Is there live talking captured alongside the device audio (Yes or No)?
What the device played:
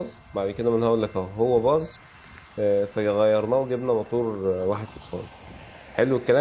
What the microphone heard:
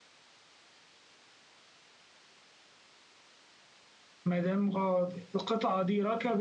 Yes